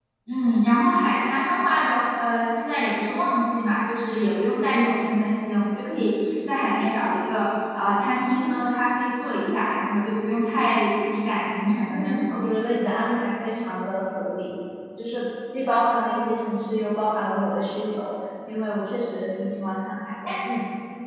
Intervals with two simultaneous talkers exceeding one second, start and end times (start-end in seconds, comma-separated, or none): none